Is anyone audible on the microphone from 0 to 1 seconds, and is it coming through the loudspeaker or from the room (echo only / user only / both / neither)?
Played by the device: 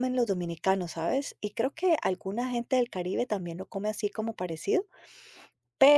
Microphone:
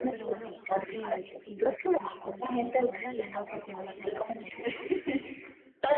both